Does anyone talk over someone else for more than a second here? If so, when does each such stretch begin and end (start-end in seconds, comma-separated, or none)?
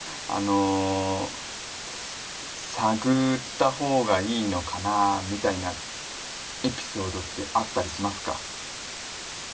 none